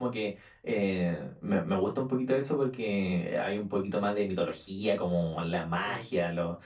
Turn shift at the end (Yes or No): No